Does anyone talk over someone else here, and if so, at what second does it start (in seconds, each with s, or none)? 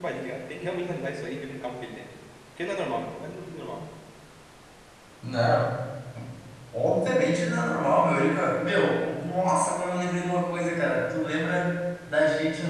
none